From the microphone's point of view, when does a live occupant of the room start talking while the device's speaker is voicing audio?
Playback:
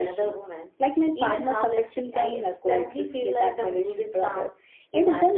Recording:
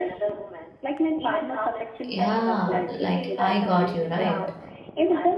2.1 s

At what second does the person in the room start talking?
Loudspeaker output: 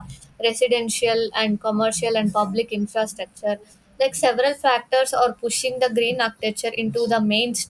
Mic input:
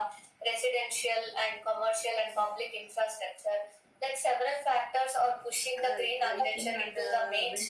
5.8 s

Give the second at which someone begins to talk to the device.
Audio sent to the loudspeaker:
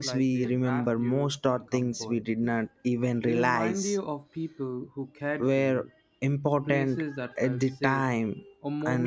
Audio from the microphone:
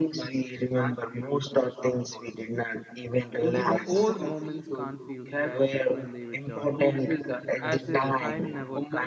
3.5 s

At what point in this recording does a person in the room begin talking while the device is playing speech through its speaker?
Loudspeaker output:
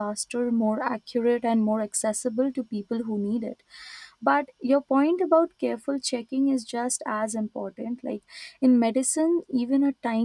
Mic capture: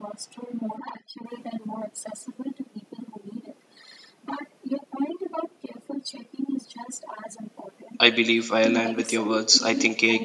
8.0 s

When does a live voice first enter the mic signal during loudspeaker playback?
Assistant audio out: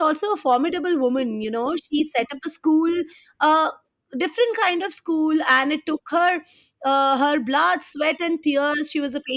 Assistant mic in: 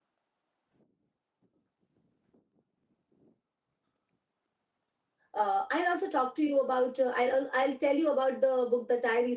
5.3 s

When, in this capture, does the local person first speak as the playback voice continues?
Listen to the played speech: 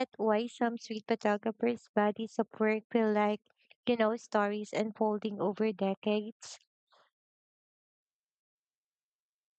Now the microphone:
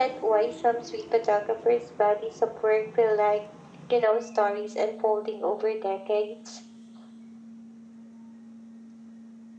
none

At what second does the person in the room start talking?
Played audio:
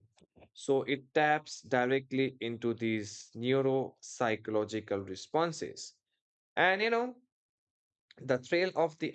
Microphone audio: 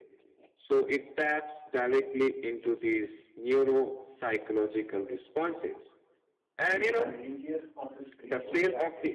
6.6 s

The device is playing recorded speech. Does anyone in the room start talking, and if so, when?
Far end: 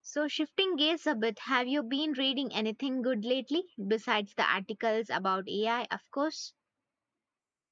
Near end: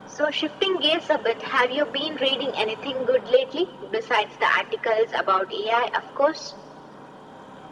none

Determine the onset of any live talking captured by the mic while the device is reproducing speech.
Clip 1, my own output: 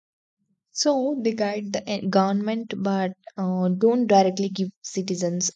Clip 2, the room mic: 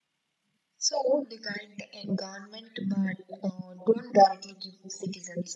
none

